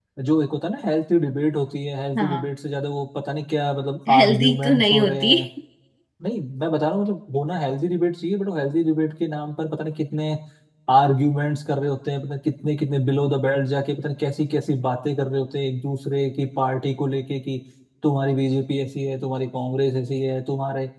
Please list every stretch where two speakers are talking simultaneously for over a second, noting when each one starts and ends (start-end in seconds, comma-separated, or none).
4.2-5.3